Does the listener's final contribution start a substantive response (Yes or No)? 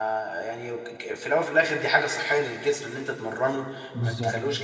No